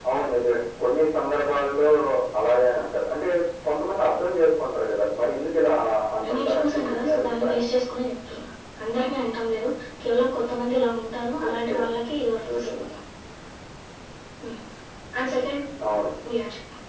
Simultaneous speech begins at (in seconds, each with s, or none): 6.3 s